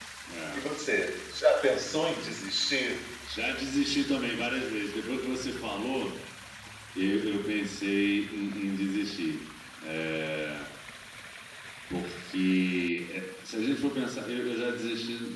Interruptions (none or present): none